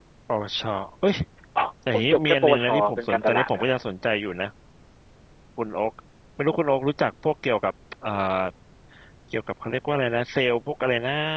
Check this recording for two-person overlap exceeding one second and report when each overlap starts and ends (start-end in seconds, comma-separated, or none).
1.9-3.6